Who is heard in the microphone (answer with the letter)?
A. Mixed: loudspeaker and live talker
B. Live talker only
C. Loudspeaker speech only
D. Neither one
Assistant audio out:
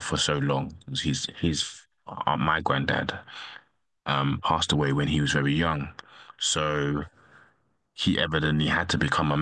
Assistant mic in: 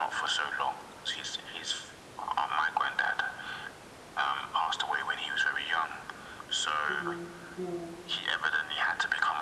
A